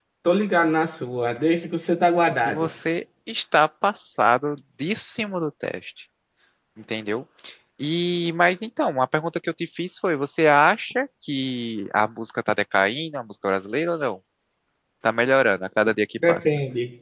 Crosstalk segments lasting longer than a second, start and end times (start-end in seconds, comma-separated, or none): none